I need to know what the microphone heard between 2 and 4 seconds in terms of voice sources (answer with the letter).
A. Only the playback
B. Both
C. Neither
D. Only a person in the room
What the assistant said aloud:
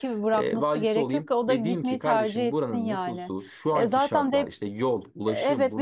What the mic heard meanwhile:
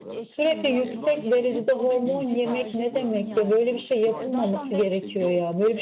B